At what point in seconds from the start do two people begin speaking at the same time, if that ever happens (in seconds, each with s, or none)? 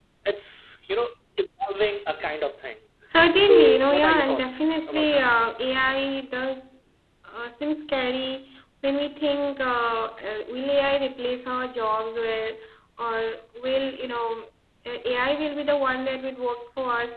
3.5 s